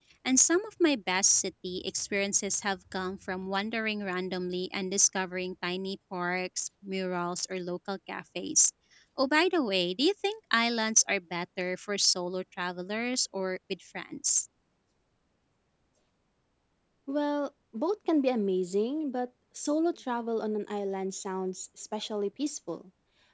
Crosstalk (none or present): none